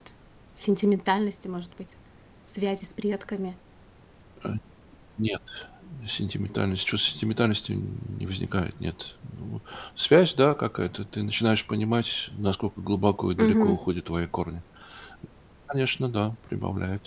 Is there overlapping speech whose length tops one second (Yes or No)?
No